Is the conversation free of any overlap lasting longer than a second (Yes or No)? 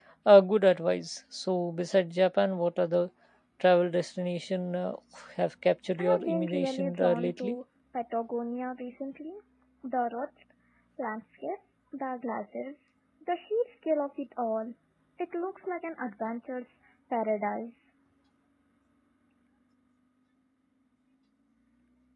No